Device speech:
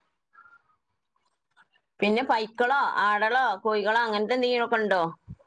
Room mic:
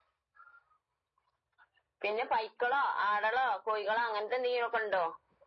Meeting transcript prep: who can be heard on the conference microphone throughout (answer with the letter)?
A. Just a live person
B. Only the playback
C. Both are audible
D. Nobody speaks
B